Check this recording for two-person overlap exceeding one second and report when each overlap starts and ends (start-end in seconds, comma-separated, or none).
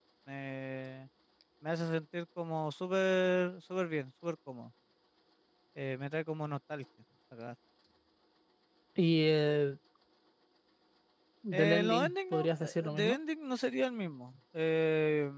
11.5-13.2